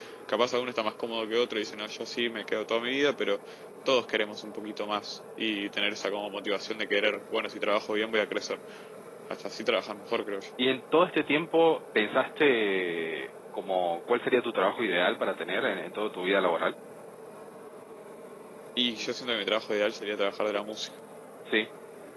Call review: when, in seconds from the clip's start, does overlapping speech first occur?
none

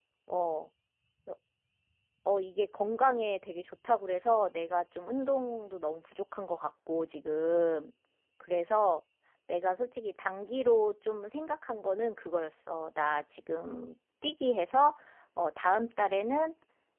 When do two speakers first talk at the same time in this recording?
none

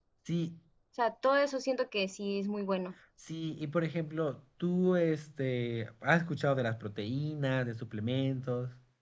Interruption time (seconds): none

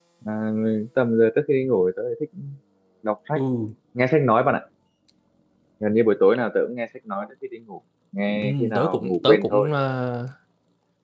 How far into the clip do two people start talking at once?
8.4 s

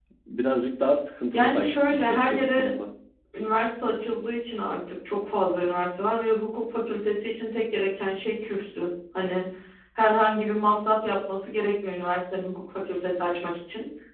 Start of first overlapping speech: 1.3 s

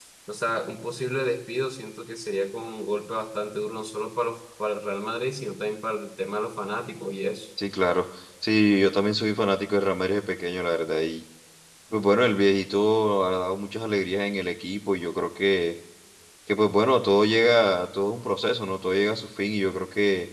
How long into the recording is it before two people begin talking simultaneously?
none

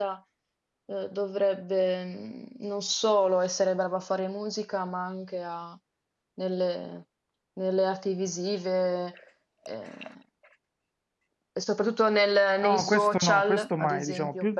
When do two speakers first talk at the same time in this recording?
12.6 s

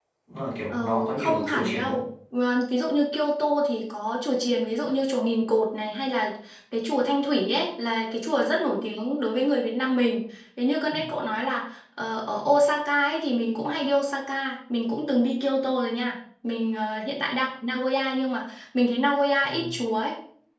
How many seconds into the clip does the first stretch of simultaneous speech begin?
0.7 s

